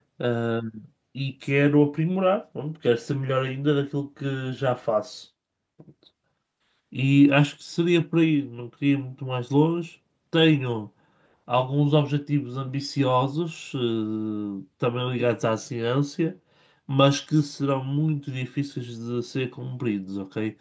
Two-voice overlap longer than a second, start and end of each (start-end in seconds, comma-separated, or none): none